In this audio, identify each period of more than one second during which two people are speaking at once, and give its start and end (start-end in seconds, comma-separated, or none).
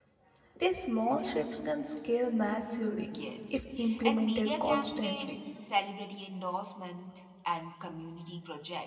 4.0-5.3